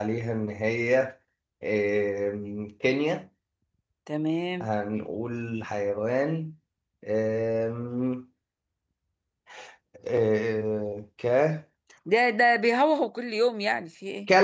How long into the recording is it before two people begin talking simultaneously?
none

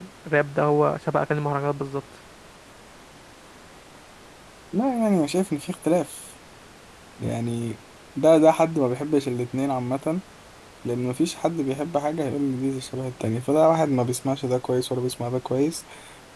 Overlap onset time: none

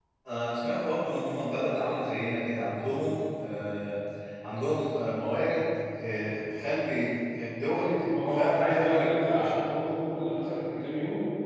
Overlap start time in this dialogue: 7.8 s

